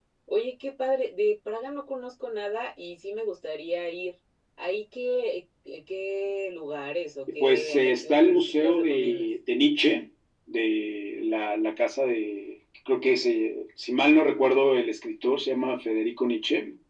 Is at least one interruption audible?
Yes, from 7.4 s

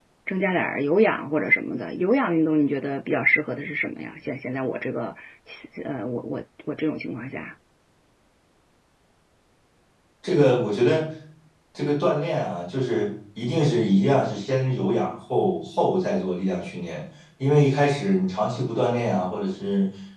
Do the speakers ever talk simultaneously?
No

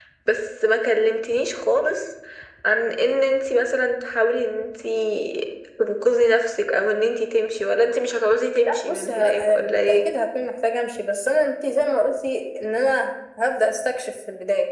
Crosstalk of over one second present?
Yes, from 8.6 s

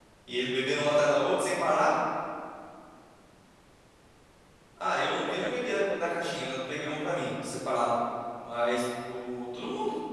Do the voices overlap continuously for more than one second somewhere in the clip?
Yes, from 5.2 s

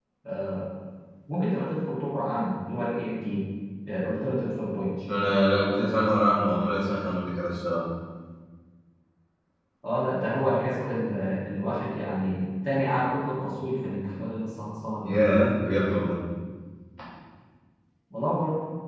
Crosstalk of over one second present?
No

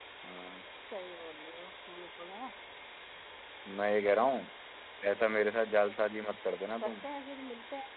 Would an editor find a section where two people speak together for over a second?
No

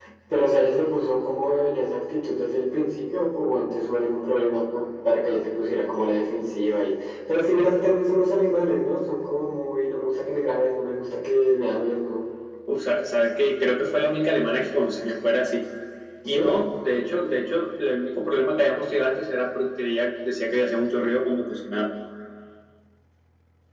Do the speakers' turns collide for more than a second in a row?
No

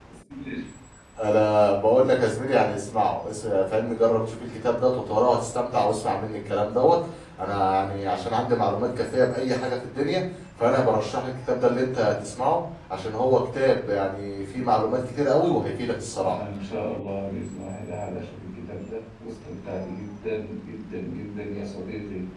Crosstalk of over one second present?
No

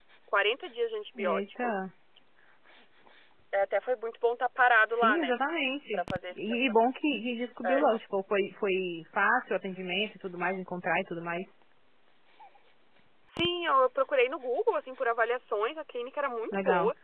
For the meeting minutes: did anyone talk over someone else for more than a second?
No

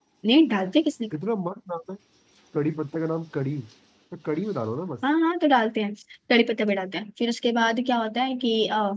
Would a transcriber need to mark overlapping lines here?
No

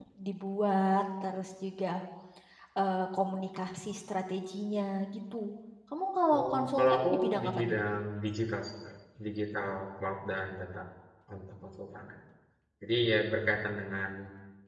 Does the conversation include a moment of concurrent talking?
Yes, from 6.4 s

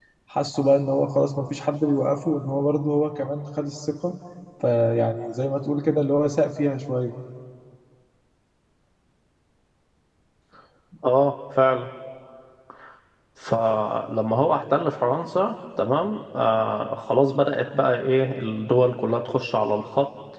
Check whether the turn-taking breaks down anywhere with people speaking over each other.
No

